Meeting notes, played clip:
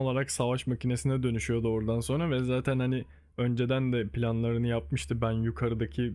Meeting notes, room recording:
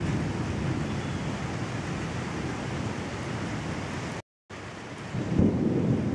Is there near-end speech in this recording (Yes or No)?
No